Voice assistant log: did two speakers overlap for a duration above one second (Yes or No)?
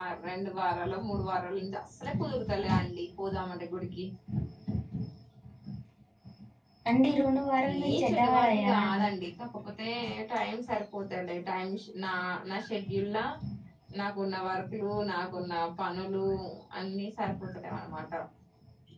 Yes